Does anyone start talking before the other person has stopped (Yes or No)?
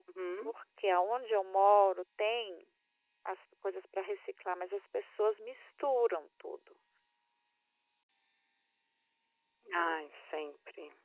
No